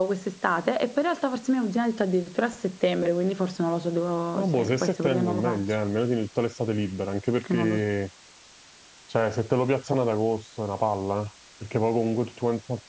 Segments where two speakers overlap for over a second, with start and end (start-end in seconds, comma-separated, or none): 4.3-5.6